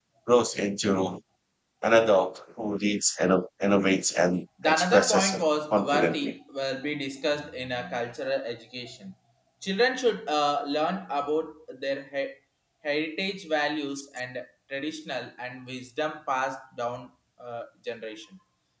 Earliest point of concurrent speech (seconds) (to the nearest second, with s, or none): 5 s